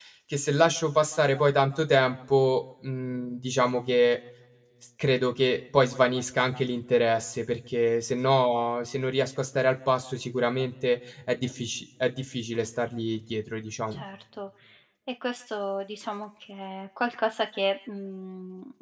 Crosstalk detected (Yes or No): No